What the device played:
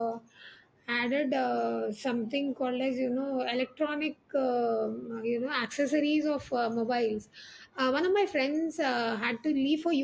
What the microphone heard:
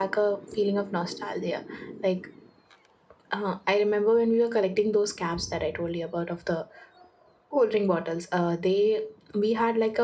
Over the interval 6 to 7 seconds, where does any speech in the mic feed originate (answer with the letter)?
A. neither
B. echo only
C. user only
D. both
C